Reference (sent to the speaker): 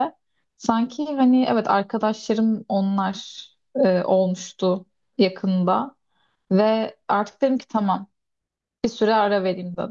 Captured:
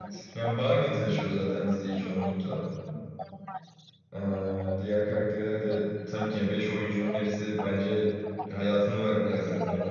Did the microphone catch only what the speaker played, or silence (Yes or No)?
No